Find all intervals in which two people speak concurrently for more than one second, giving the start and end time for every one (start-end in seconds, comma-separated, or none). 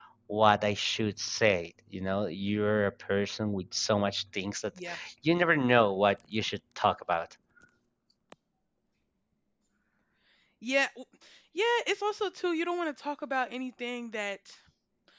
none